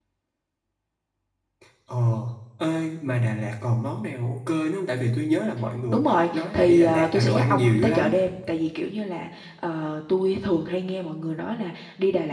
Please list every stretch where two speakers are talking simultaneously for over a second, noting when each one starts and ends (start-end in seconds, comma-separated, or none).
5.9-8.2